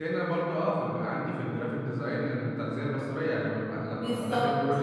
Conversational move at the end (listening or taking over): listening